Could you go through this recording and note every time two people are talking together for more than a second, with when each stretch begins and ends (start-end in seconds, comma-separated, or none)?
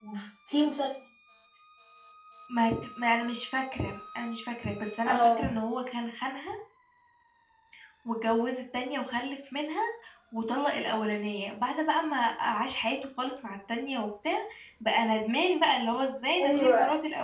none